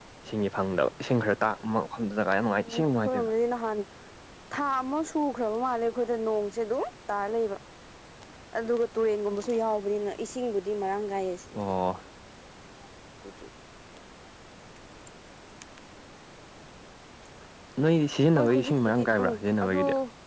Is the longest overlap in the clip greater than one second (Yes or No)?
Yes